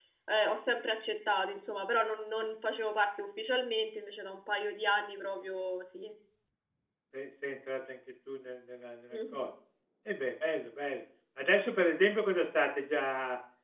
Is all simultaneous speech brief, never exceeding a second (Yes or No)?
Yes